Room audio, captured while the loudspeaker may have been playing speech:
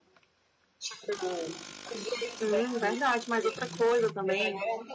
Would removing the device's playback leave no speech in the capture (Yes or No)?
No